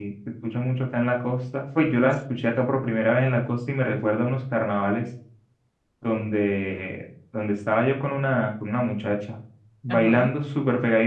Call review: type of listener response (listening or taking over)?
listening